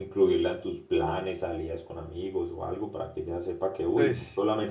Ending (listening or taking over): listening